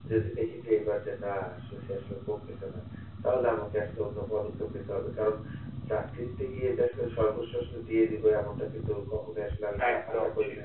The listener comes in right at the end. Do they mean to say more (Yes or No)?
No